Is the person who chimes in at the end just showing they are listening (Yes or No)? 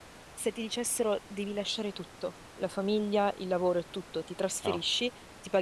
Yes